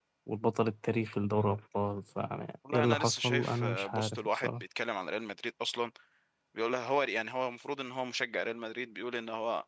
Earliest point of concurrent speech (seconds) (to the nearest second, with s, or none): 3 s